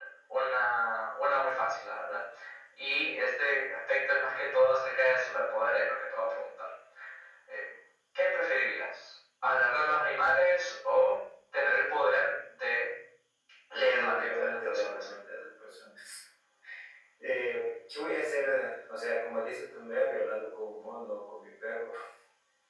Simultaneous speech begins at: 13.7 s

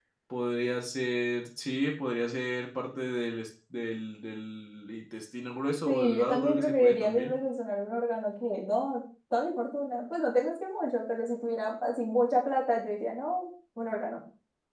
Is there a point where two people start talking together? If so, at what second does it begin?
5.8 s

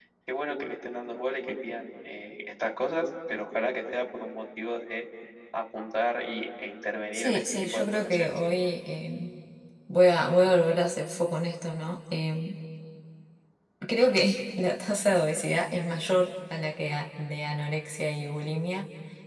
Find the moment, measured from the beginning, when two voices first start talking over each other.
7.1 s

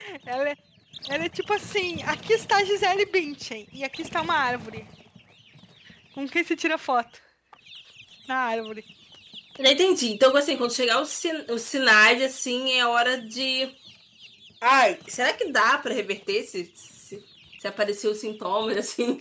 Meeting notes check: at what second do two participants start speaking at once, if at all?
none

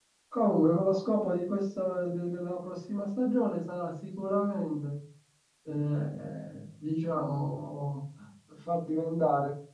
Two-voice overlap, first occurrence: none

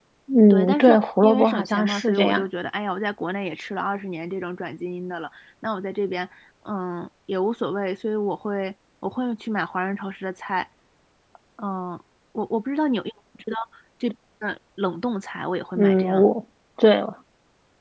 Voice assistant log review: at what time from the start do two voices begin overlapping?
0.5 s

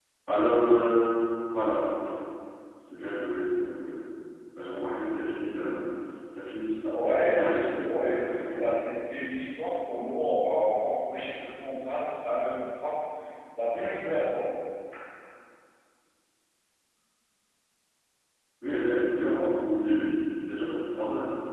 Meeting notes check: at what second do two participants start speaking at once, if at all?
6.9 s

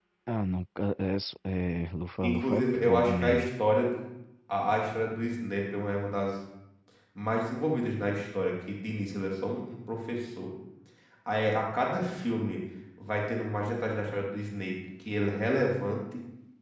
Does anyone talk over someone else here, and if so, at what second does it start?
2.2 s

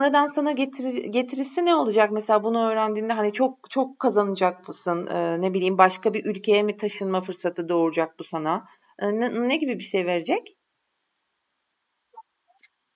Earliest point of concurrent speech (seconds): none

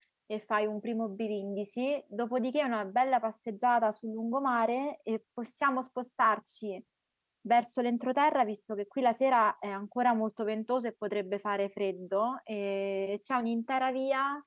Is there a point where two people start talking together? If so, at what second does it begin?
none

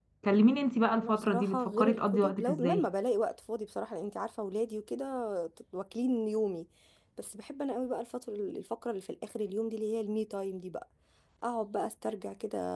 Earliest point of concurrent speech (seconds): 1.0 s

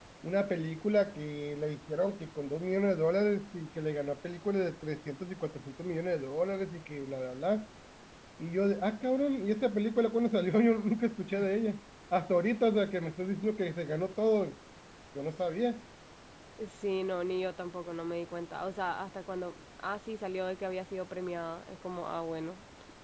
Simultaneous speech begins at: none

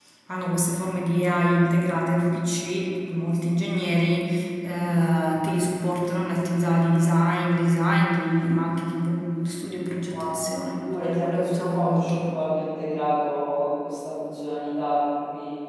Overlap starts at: 10.1 s

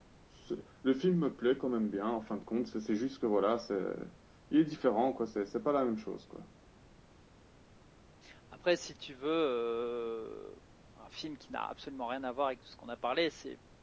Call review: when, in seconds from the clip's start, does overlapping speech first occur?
none

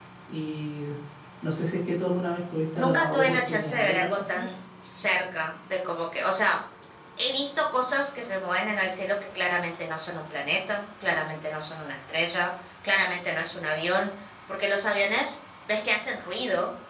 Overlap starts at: 2.8 s

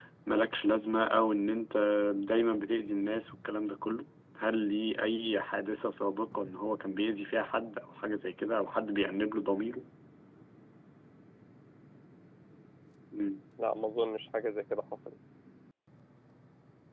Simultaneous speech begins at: none

